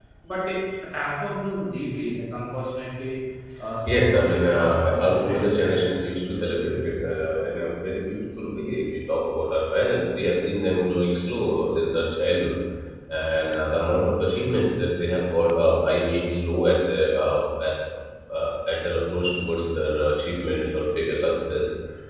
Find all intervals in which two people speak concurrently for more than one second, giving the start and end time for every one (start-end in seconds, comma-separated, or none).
3.9-5.8